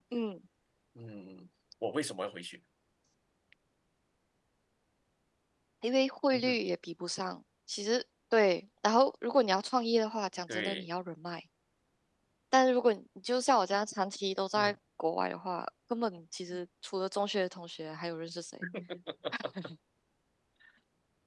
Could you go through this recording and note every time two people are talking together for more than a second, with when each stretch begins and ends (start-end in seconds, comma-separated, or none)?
none